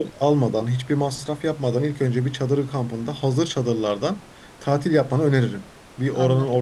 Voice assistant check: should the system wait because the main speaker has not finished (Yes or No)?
Yes